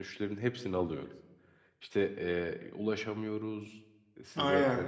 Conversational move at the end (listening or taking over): listening